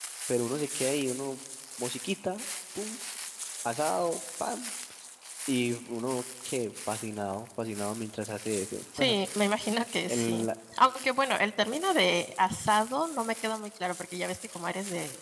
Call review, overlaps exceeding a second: none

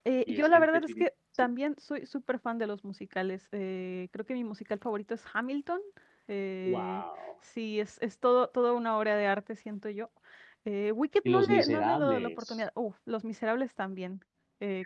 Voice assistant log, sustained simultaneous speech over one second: present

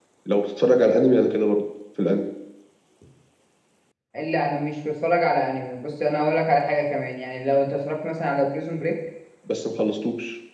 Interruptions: none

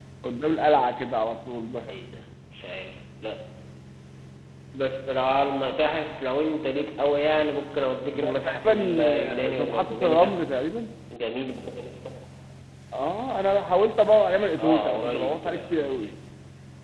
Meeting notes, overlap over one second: present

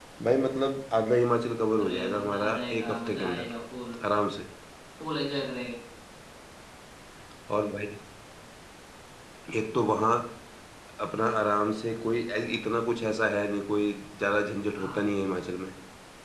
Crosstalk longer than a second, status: present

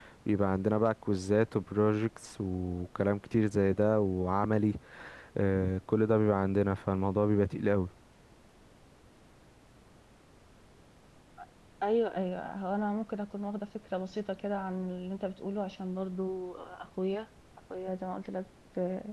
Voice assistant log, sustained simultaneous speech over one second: none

